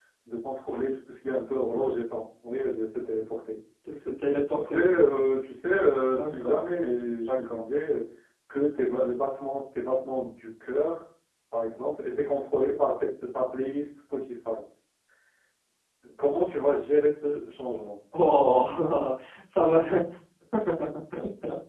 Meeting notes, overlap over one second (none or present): none